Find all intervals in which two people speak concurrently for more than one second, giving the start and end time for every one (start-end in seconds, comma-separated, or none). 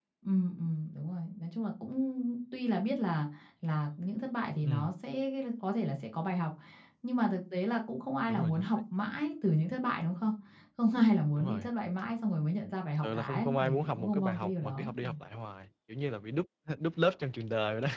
13.0-14.9